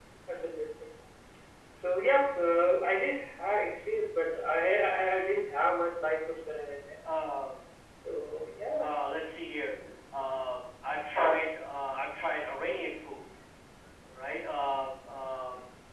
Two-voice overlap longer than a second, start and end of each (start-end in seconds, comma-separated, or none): none